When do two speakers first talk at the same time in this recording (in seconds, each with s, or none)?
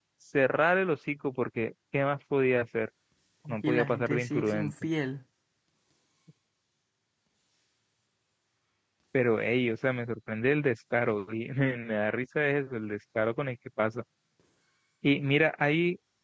3.5 s